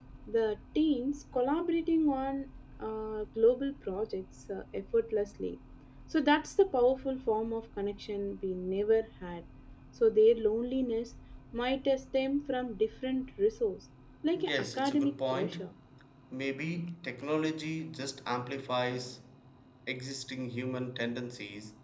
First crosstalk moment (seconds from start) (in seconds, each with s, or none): 14.4 s